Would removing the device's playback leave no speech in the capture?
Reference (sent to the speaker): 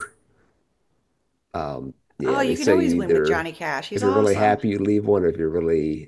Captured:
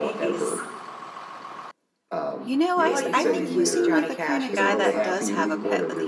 No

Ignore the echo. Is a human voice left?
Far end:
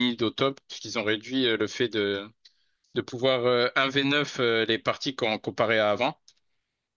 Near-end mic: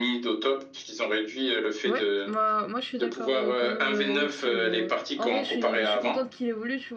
Yes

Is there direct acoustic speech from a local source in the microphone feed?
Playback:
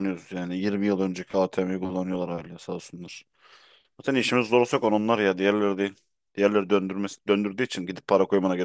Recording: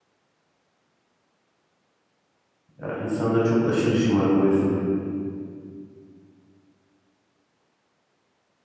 Yes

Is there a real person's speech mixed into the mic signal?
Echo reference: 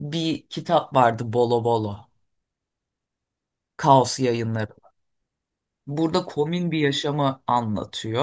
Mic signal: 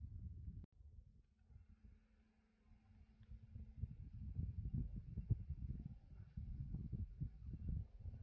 No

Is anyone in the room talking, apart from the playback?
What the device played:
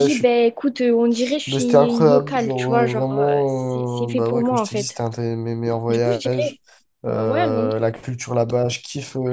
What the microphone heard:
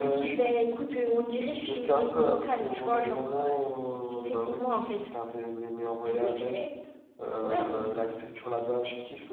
No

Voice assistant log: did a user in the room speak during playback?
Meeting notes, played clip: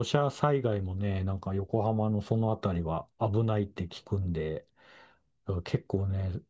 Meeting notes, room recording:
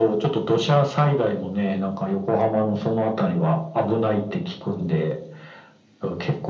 No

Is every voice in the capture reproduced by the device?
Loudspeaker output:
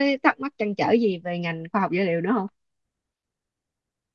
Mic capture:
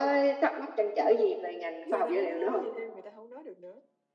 No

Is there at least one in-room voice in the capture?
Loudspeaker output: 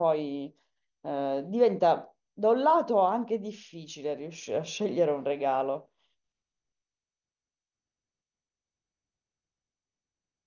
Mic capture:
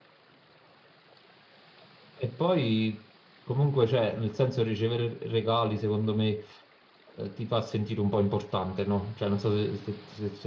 Yes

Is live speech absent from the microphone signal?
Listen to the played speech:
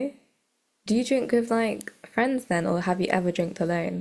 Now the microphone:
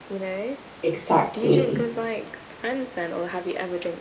No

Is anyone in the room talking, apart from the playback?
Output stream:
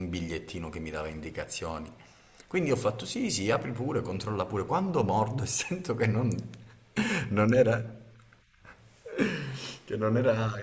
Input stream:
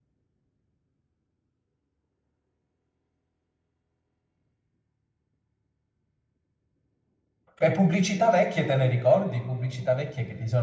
Yes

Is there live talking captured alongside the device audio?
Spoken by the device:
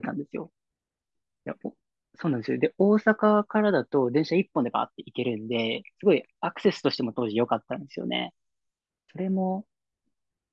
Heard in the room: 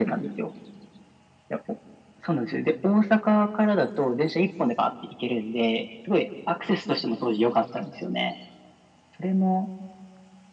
No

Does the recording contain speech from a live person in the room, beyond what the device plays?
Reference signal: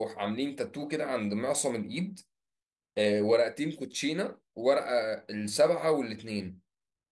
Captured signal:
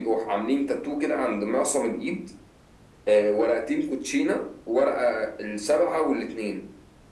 No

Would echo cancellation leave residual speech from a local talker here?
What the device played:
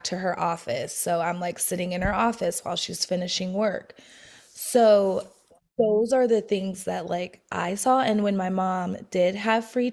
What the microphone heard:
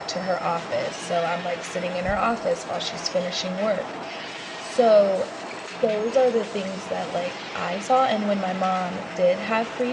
No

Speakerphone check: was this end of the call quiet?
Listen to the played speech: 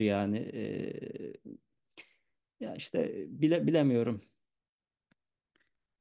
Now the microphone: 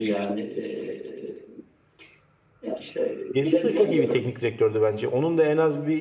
No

